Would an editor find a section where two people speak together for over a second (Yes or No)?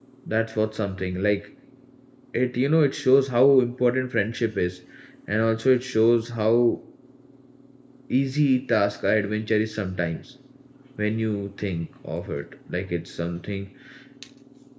No